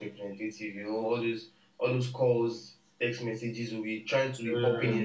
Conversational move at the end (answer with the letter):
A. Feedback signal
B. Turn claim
A